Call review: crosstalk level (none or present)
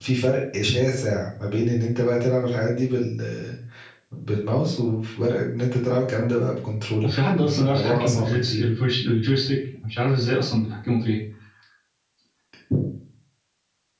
present